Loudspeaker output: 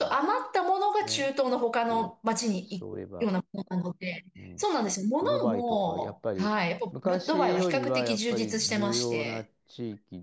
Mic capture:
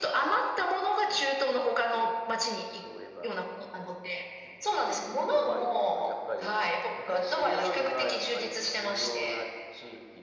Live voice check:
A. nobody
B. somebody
A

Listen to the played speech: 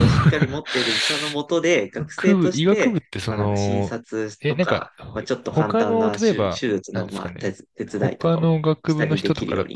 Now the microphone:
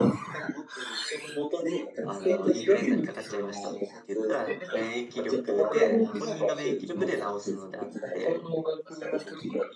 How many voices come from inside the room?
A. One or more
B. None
A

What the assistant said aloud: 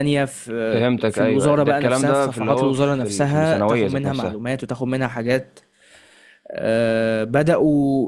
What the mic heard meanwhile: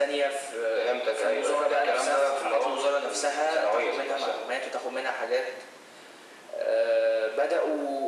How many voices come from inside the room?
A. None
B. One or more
A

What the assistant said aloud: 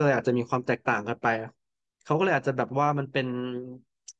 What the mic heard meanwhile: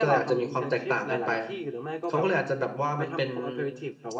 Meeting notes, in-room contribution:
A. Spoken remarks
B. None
A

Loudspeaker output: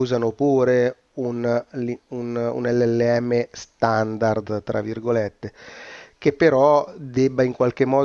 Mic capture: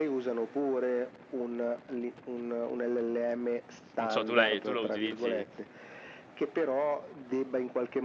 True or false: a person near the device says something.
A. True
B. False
A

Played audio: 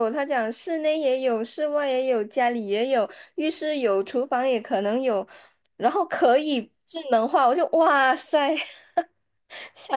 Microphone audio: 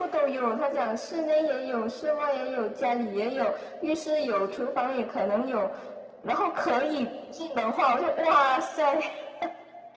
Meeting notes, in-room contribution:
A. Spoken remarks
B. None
B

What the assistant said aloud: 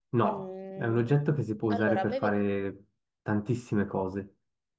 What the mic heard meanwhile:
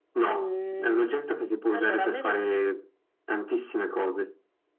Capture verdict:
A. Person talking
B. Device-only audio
B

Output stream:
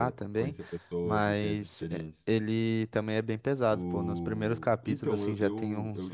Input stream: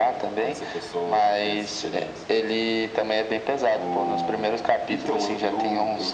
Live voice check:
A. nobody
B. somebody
A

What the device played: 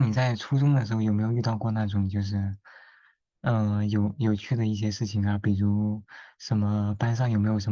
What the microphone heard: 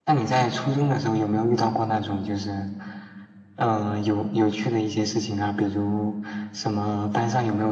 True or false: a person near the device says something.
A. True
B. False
B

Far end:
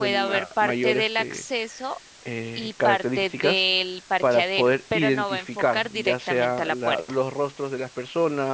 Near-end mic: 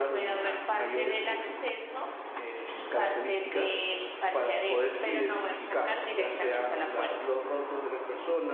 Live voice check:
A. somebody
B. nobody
B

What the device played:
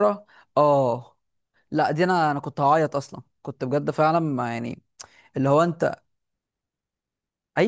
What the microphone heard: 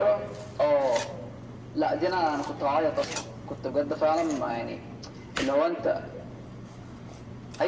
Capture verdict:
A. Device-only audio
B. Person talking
A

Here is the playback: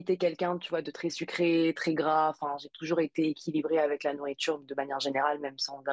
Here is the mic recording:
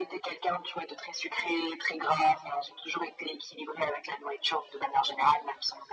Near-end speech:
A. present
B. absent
B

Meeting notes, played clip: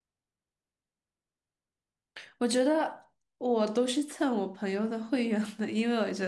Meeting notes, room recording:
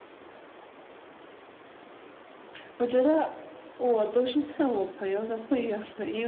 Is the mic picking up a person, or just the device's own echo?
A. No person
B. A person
A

